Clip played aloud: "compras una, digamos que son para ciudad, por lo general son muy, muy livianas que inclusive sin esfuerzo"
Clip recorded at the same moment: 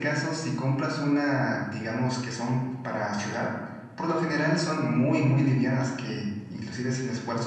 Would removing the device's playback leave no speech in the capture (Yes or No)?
Yes